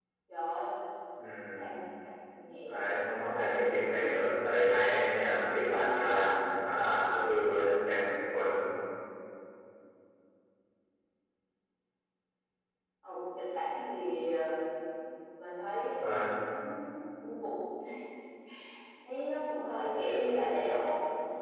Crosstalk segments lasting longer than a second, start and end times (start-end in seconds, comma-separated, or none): 2.6-3.9